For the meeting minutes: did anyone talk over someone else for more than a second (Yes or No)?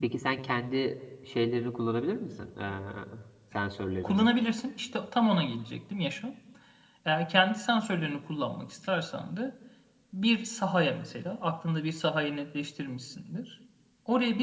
No